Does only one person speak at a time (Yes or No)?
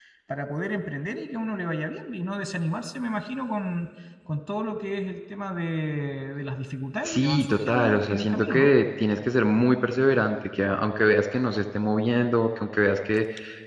No